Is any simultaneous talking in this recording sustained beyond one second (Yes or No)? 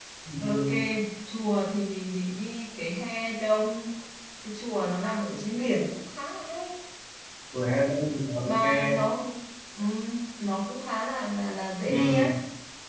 No